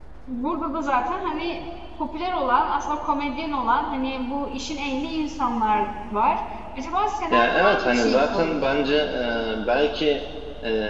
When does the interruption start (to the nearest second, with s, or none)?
7 s